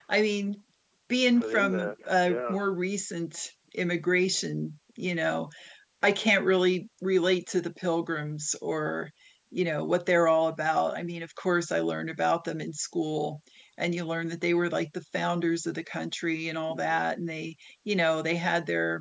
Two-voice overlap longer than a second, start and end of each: 1.4-2.6

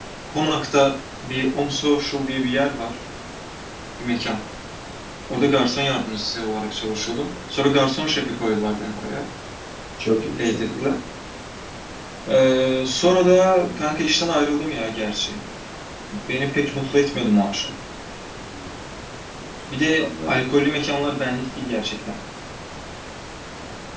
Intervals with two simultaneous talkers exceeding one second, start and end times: none

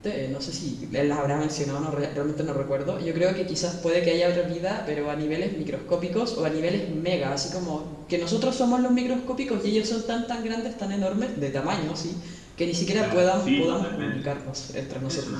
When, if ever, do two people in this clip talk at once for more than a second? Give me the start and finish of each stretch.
13.0-14.2

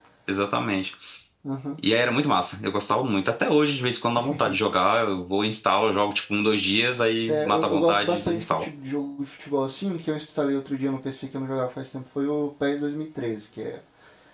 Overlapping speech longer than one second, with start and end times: 7.3-8.6

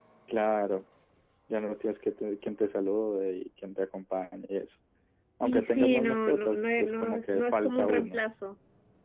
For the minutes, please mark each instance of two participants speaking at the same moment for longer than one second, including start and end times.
5.4-8.2

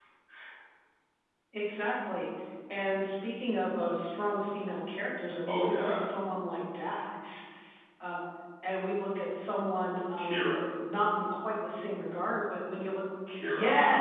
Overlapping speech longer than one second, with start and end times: none

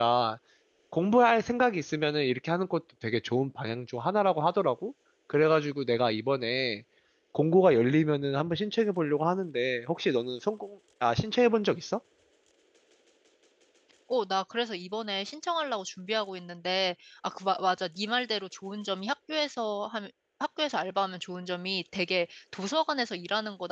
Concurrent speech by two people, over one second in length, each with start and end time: none

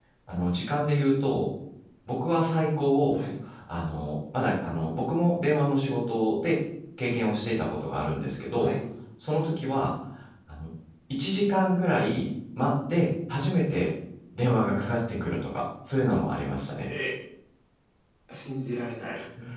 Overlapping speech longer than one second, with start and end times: none

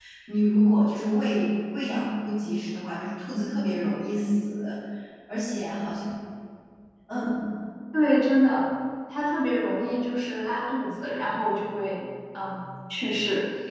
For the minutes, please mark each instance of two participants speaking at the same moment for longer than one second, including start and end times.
none

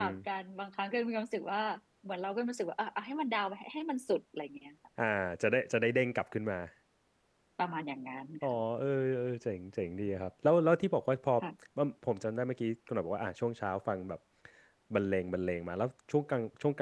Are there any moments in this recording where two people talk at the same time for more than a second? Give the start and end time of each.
none

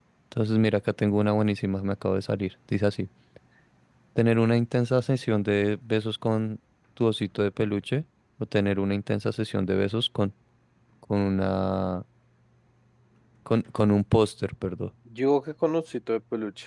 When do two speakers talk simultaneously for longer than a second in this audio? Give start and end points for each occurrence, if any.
none

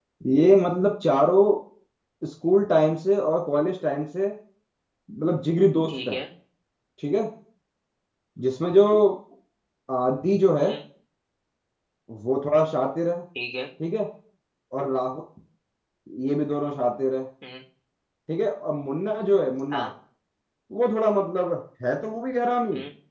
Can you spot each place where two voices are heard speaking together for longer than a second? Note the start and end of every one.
none

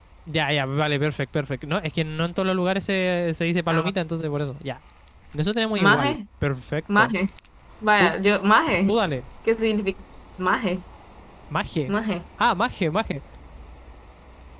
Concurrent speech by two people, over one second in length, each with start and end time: none

